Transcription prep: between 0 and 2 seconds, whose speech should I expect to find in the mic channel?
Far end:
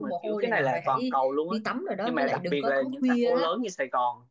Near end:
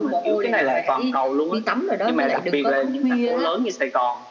echo only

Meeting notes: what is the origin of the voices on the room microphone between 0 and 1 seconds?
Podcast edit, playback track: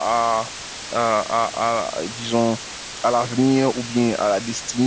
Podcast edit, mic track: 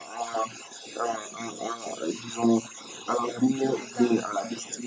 echo only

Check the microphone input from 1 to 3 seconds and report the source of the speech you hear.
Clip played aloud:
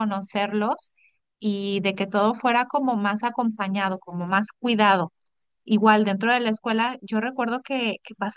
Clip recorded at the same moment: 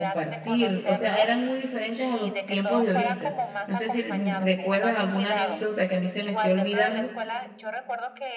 both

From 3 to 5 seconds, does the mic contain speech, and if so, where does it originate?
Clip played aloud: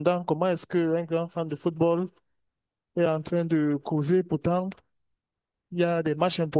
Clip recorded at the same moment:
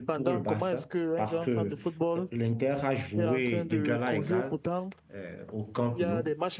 both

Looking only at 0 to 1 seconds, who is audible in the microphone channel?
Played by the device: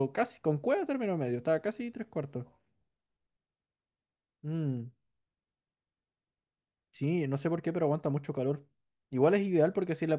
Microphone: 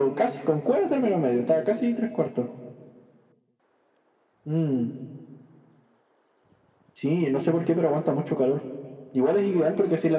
echo only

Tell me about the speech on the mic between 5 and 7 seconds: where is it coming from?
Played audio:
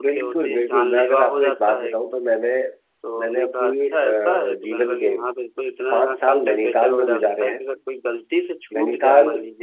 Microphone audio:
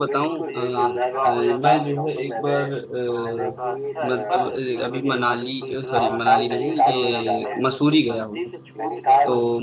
both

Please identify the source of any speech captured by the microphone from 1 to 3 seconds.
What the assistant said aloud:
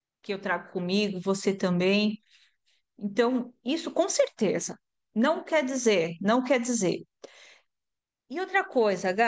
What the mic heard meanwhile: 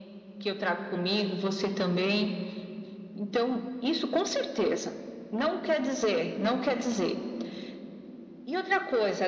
echo only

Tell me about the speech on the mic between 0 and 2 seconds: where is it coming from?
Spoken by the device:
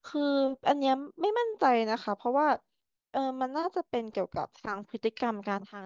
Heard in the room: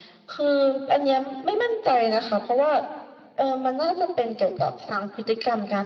echo only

